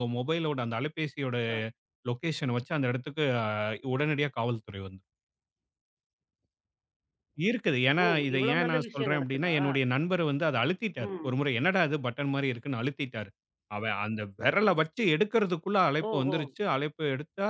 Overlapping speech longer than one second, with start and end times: 8.0-9.5

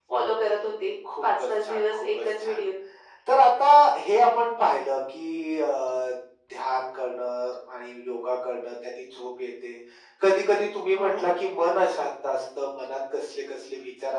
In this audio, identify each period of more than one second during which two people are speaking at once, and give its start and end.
1.2-2.6

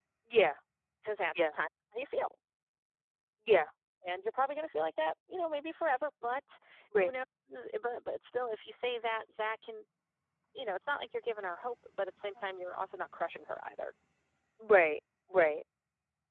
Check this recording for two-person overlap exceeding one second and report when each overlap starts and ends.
none

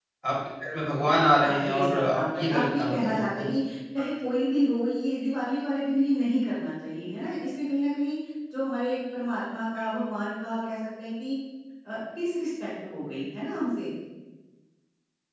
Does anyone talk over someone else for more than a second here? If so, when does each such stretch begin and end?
1.5-3.5

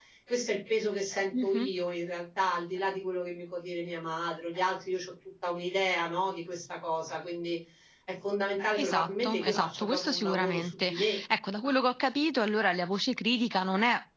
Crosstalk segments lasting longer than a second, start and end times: 8.8-11.2

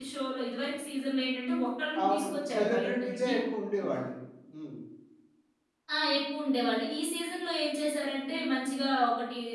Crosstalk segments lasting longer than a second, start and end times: 2.0-3.3

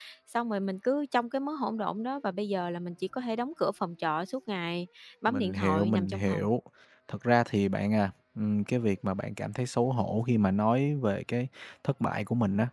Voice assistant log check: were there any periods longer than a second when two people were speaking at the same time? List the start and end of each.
5.3-6.5

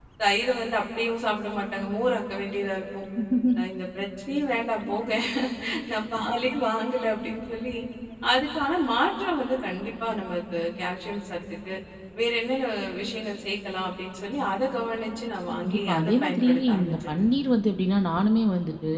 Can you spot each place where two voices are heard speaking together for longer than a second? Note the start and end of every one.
15.6-17.2

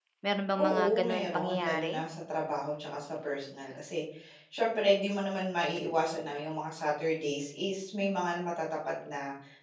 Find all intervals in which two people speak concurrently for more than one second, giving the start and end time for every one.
0.6-1.9

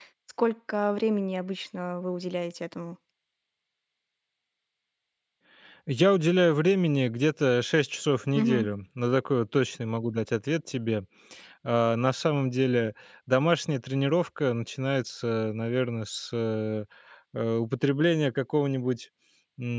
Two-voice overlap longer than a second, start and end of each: none

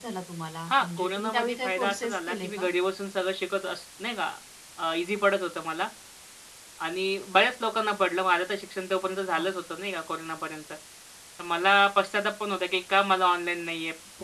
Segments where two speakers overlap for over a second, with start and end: 0.7-2.6

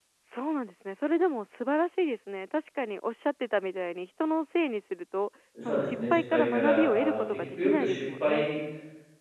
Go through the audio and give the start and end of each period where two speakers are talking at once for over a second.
5.7-8.5

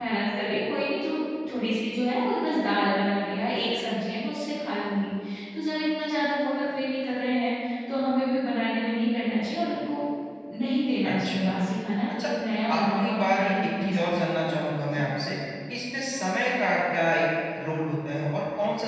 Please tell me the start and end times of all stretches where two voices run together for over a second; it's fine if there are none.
12.8-14.2

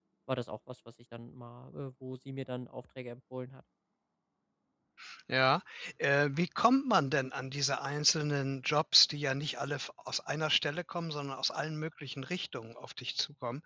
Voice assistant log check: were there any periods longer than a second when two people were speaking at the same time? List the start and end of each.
none

